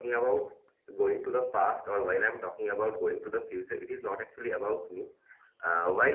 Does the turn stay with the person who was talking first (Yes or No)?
Yes